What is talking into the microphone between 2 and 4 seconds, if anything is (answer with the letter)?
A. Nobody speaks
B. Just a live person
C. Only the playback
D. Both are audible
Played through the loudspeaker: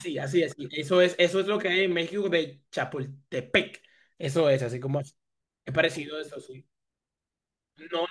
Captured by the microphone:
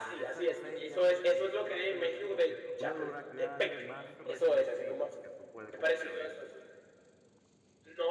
D